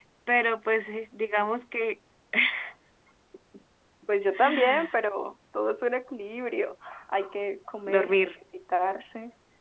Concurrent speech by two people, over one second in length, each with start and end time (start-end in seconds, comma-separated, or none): none